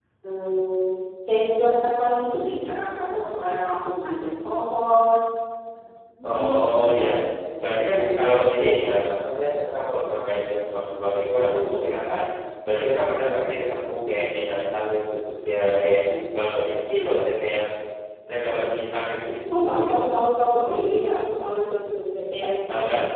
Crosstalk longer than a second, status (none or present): none